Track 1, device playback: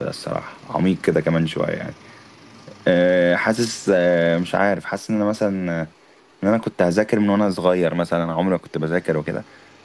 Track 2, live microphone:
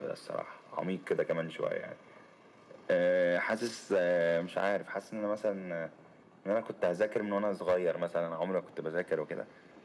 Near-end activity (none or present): none